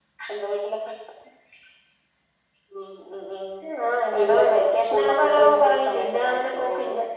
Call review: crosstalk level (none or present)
present